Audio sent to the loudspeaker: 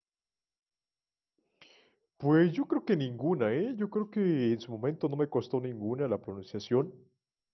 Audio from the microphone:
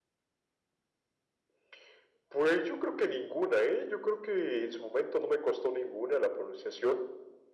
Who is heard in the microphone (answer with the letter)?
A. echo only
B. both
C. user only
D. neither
A